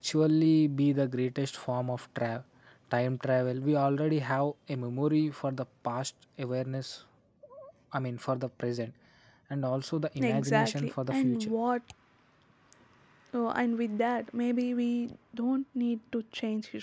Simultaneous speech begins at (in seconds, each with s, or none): 10.2 s